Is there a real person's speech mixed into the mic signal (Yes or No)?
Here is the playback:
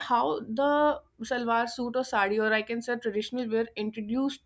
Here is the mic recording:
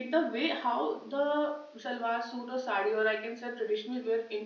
No